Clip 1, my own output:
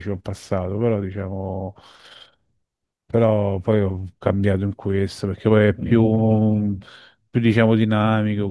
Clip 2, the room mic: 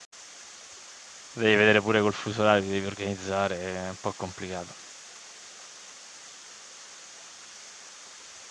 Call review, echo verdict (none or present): none